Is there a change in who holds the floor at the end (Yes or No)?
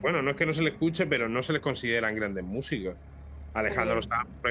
No